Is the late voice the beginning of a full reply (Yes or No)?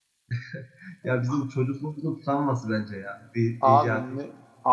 Yes